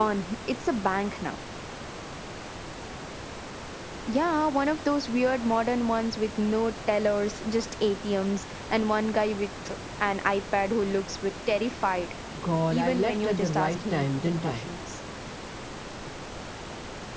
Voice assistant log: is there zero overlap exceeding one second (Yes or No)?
No